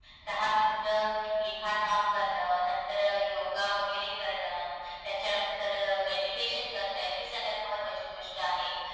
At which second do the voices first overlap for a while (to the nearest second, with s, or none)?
none